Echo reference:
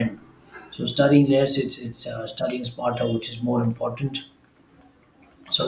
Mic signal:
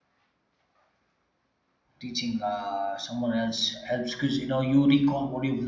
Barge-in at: 2.0 s

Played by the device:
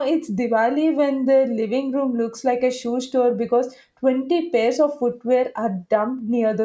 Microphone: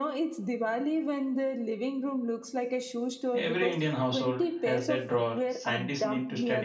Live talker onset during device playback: 3.3 s

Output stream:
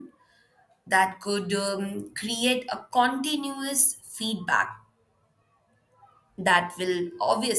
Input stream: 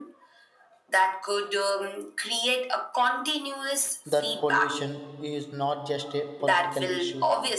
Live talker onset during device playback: 4.0 s

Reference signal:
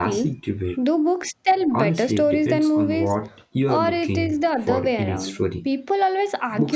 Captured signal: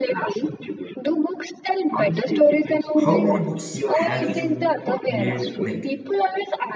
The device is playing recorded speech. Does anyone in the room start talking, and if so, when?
3.0 s

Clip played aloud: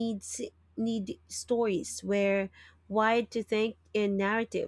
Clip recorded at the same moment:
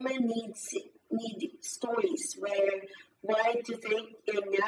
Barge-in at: none

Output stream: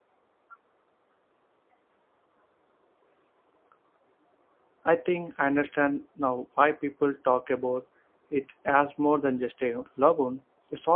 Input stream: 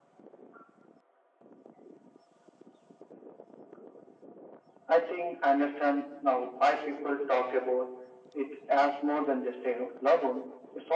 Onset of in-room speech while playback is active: none

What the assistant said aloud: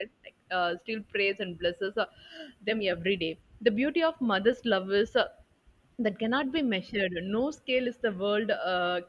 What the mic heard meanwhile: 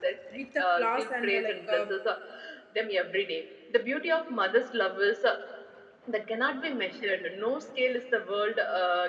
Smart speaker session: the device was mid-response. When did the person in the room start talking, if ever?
0.3 s

